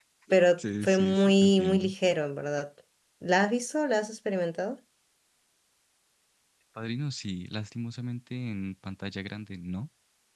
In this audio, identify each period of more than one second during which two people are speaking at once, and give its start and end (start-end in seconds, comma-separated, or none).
0.6-1.9